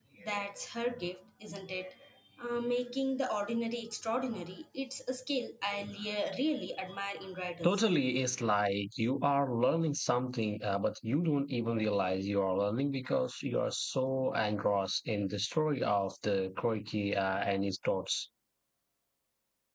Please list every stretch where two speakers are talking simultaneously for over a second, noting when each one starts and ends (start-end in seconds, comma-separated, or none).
none